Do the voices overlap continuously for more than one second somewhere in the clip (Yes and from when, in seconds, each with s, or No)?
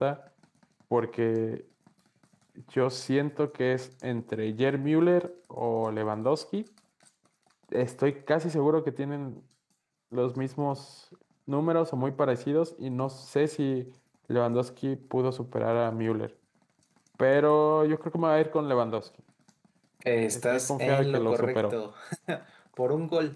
Yes, from 20.3 s